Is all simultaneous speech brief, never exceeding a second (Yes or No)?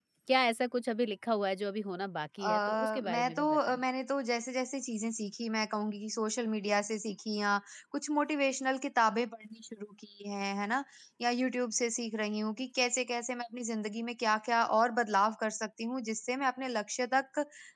No